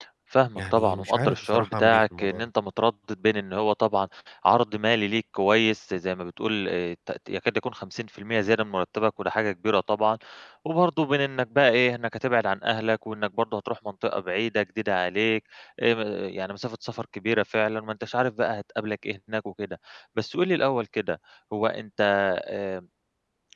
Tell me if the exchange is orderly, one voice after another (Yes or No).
No